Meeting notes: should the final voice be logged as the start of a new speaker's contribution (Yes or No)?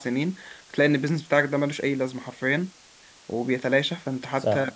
Yes